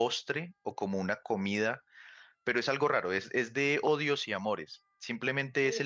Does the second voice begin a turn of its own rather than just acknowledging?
No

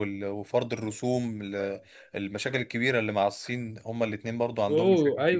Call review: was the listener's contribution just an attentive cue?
No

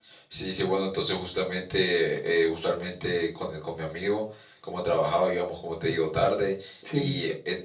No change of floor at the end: Yes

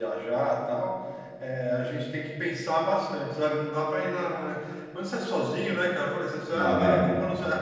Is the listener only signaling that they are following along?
Yes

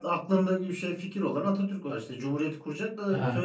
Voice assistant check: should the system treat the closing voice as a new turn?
Yes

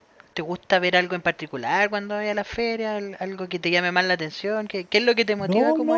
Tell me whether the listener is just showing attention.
No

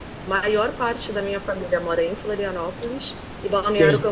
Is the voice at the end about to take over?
No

